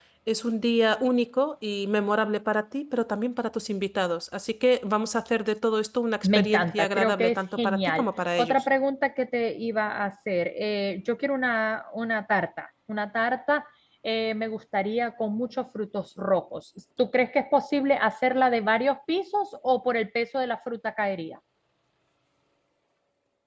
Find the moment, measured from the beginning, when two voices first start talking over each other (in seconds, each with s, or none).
6.2 s